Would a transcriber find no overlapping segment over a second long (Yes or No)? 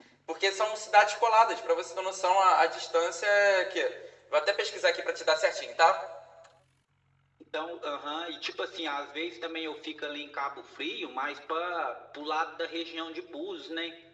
Yes